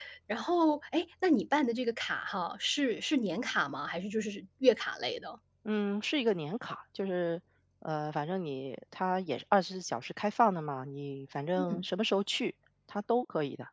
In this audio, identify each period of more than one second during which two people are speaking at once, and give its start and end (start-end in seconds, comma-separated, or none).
none